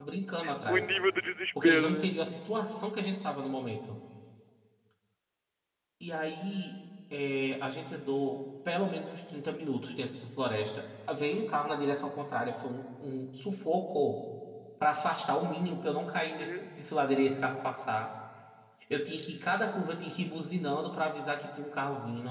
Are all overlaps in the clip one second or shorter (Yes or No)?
Yes